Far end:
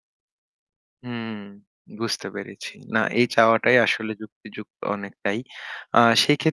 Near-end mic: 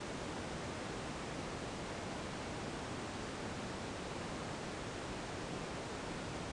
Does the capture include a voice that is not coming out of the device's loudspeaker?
No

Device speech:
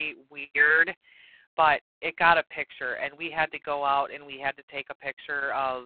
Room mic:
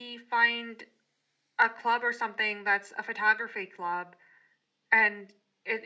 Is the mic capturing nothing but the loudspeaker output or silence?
No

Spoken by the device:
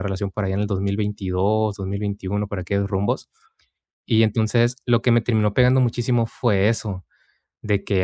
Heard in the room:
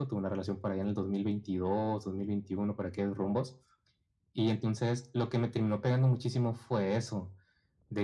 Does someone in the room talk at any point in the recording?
No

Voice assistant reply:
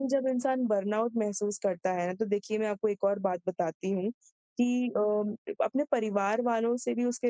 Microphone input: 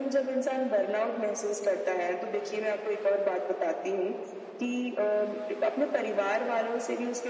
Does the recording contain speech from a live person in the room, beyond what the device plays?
No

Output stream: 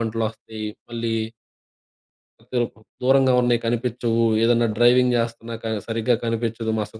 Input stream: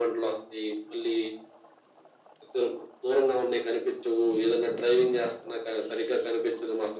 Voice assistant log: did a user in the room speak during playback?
No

